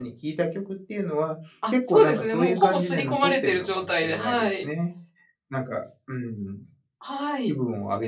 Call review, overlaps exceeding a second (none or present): present